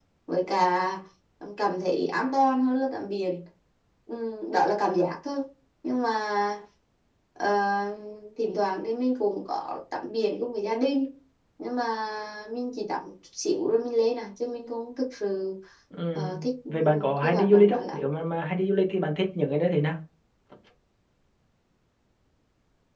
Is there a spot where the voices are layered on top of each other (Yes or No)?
Yes